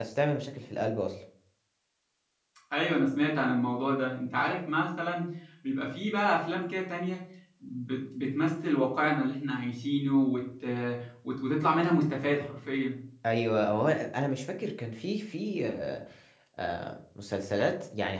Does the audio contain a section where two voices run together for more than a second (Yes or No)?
No